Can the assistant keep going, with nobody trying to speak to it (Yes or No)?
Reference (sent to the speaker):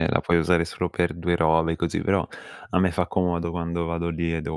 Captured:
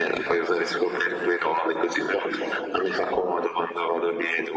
Yes